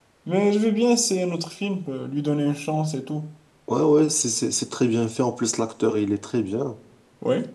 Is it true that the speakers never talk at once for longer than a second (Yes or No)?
Yes